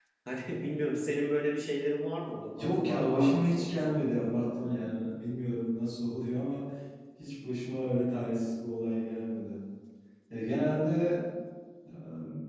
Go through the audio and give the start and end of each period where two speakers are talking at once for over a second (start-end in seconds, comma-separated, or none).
2.6-4.8